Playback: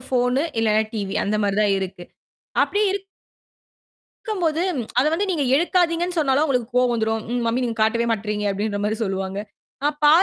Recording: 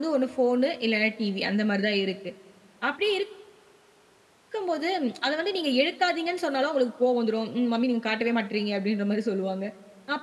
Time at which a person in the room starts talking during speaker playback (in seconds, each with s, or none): none